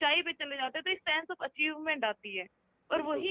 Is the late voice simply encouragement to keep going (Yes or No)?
Yes